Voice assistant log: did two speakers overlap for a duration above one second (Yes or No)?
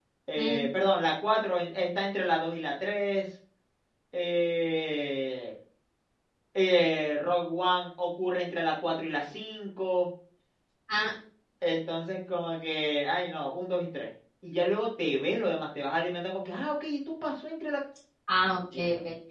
No